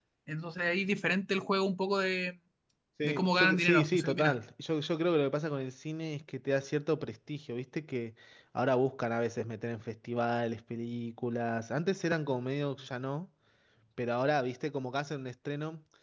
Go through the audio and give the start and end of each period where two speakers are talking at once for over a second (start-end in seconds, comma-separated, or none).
3.0-4.3